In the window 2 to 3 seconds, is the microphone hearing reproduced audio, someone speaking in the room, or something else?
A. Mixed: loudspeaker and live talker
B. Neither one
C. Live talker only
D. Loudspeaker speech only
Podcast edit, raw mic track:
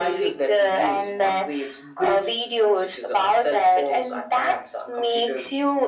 D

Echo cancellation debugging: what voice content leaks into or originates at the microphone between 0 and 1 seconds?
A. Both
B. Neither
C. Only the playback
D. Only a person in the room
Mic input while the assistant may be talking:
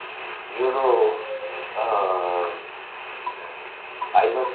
C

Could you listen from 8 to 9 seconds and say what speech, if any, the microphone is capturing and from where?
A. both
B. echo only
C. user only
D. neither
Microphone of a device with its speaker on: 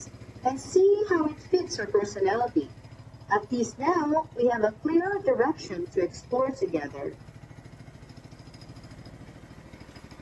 D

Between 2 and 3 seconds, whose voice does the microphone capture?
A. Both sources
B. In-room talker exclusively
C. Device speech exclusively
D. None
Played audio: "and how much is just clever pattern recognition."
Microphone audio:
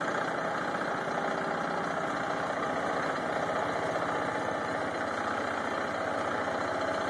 D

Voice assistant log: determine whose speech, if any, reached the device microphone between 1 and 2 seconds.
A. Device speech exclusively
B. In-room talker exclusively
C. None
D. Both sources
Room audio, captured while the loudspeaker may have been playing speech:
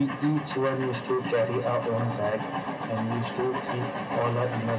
A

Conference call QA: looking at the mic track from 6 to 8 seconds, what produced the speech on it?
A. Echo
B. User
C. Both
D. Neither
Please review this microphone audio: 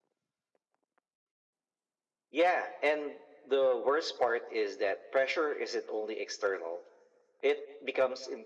A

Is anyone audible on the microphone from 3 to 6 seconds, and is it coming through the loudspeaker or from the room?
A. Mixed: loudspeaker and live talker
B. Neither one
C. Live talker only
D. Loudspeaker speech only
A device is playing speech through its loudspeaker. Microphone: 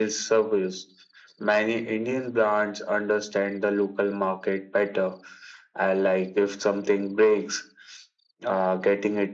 D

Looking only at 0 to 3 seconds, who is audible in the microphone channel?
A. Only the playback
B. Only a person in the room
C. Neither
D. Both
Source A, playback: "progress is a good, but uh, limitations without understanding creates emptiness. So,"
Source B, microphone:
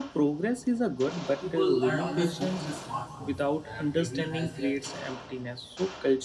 D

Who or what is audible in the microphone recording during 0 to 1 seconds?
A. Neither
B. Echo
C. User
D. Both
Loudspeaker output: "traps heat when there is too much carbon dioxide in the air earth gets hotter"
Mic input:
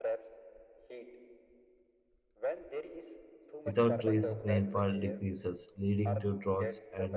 B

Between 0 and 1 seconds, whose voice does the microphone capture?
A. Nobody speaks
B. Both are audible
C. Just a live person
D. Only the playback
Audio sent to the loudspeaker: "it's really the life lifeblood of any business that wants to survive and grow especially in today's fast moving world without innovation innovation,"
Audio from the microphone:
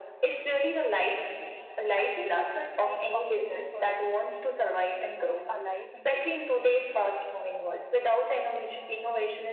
D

